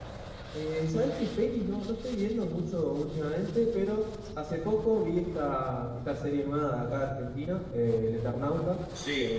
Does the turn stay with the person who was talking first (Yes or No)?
Yes